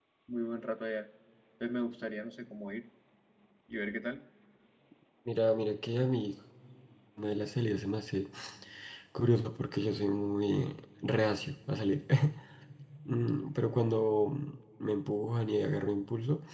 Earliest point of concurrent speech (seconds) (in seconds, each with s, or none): none